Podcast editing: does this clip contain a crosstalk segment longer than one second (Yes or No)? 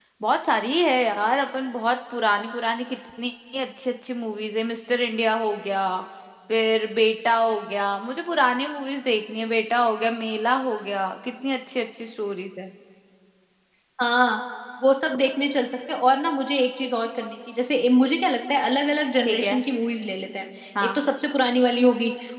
No